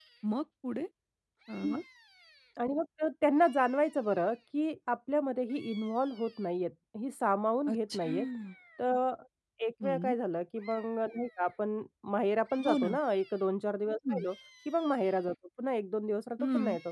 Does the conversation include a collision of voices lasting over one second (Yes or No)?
No